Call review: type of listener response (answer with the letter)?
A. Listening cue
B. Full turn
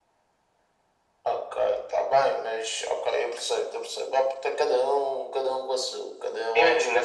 B